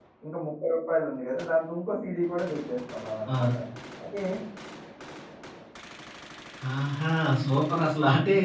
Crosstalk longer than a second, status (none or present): none